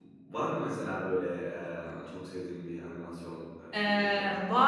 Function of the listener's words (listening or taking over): taking over